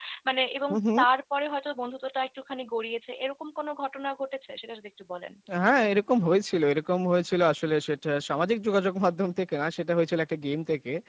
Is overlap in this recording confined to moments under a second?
Yes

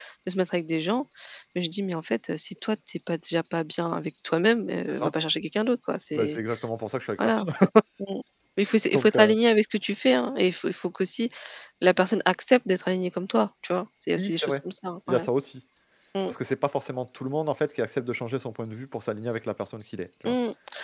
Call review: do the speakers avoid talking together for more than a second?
Yes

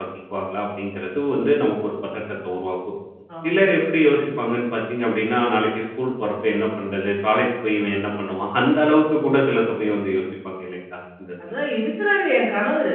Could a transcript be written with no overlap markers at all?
Yes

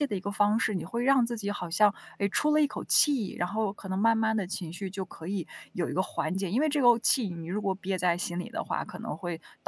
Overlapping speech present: No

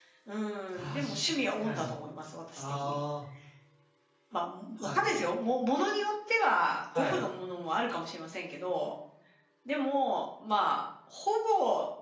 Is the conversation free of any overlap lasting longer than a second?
Yes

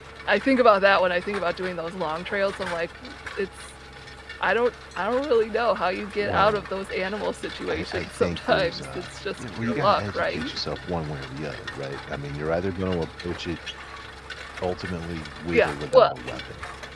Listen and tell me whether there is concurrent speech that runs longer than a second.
Yes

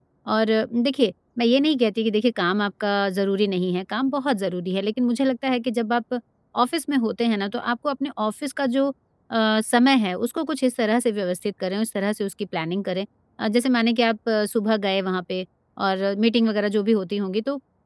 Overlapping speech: No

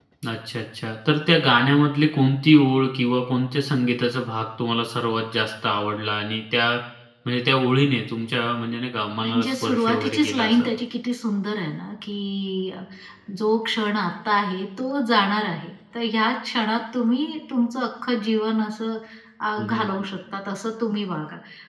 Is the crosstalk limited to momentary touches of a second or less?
No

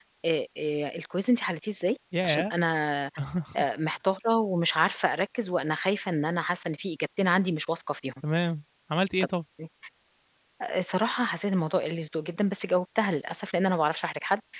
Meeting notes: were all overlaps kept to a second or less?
Yes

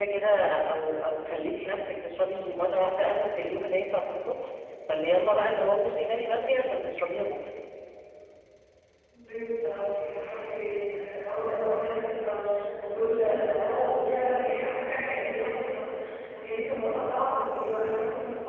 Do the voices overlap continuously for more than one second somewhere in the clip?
No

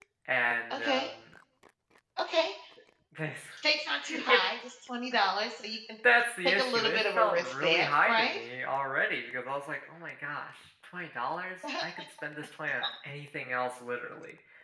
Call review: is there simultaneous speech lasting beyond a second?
Yes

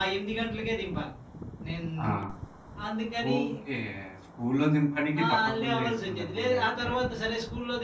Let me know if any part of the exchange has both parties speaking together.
Yes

